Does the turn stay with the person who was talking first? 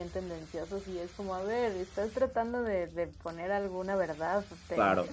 Yes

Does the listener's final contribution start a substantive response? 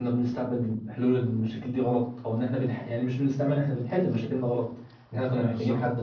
No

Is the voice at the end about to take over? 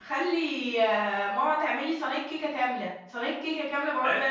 Yes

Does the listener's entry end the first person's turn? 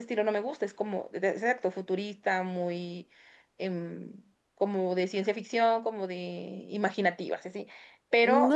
Yes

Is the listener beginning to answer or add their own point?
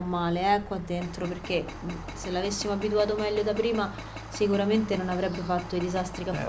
Yes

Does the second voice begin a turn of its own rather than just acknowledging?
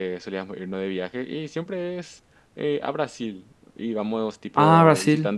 No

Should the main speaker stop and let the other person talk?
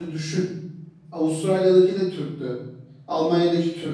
No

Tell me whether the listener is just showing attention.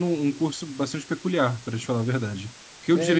Yes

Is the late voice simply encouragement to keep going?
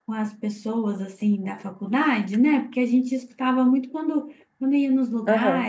Yes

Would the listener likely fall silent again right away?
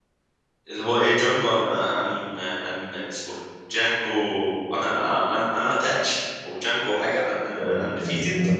No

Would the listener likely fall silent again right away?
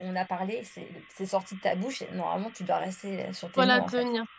No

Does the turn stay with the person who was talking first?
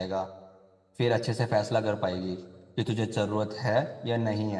Yes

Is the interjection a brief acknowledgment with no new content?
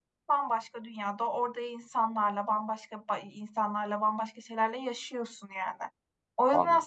Yes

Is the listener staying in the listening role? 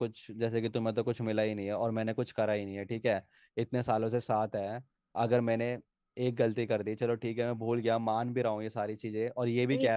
No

